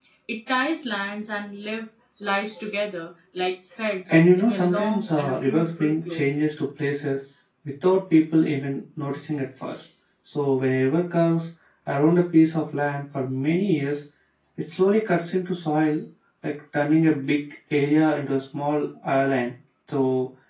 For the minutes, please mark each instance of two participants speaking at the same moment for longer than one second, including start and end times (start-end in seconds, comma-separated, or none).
4.1-6.2